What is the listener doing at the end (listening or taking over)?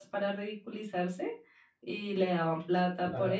taking over